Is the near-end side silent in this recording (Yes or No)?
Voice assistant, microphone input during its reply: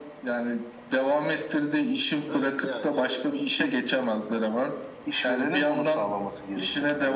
No